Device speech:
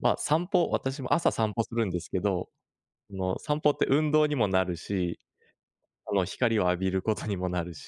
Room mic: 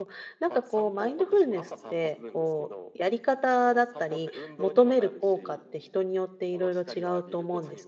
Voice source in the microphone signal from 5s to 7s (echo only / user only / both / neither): both